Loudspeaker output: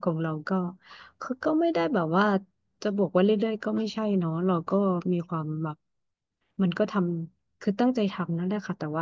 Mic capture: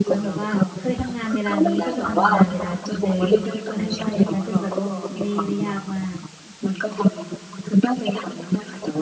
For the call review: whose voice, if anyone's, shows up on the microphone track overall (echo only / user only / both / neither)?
both